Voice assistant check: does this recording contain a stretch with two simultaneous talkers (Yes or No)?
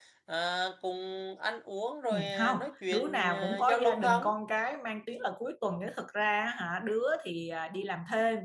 Yes